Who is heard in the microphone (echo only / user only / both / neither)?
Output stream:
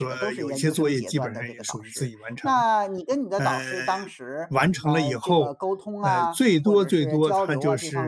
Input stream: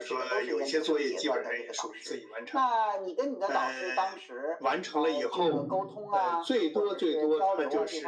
both